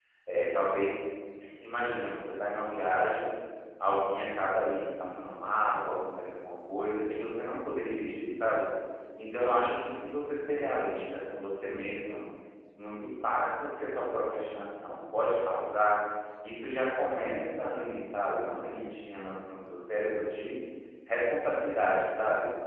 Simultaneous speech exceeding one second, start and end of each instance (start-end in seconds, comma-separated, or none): none